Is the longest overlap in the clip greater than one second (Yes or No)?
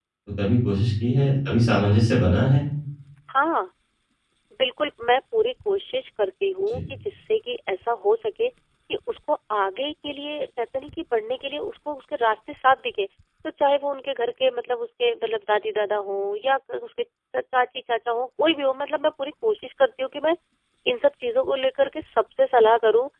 No